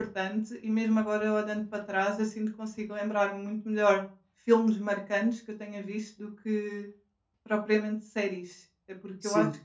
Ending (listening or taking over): listening